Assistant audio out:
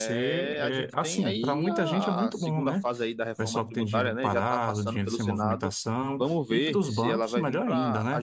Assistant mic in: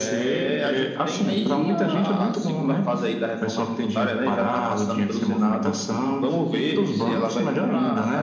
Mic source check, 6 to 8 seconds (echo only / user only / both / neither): echo only